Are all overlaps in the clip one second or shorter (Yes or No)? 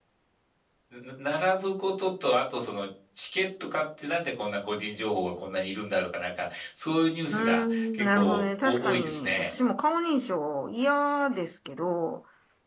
No